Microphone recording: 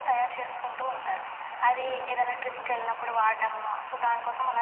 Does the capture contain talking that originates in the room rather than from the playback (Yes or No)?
No